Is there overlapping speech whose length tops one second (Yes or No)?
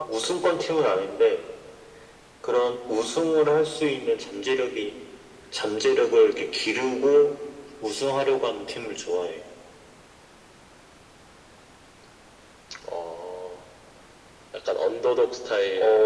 No